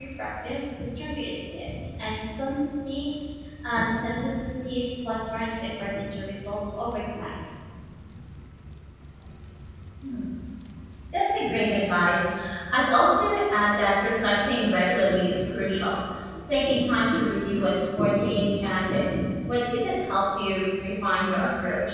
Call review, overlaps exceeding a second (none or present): none